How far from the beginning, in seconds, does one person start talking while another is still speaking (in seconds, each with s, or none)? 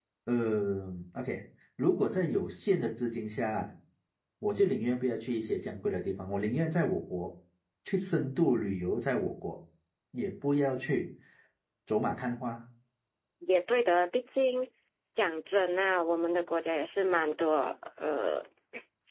none